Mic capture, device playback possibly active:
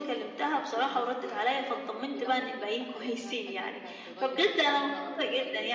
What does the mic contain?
both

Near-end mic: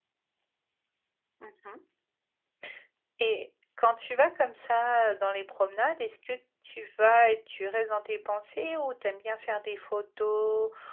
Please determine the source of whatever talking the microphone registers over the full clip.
user only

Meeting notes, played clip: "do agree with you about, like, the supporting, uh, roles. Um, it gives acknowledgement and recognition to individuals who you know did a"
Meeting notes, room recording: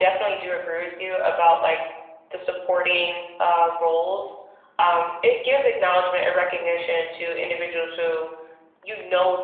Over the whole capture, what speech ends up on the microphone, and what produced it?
echo only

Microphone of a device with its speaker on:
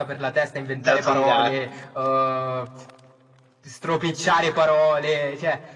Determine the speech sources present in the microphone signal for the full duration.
both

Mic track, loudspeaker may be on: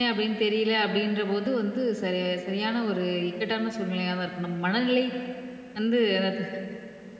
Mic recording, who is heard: user only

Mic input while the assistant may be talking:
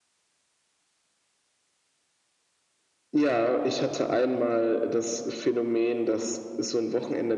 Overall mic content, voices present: echo only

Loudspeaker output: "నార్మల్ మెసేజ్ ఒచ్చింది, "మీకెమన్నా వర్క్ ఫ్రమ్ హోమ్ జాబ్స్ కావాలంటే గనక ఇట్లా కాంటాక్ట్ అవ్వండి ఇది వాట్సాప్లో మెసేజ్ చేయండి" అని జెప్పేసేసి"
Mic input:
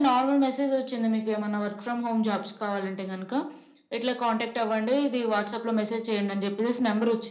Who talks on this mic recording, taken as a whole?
echo only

